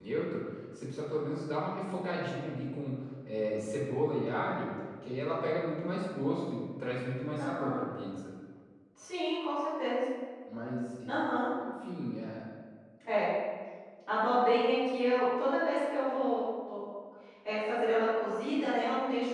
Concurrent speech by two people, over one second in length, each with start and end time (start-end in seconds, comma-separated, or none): none